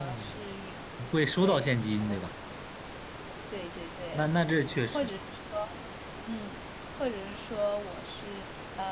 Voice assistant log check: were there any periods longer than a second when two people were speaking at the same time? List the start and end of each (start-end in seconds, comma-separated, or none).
none